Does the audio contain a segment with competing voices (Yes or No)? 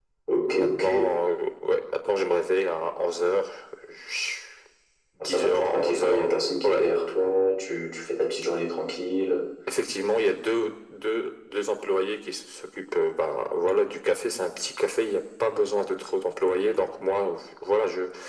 Yes